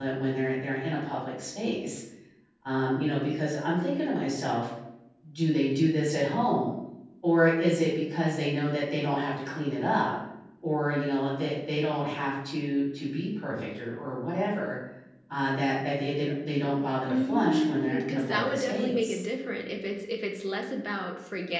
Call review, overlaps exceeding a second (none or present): present